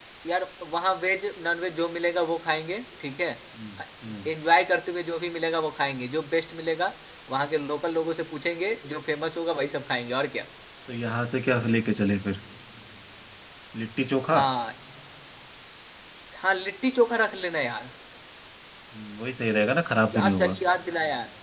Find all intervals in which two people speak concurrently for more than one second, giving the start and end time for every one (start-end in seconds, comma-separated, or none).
none